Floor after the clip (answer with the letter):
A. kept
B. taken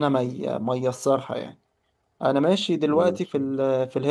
A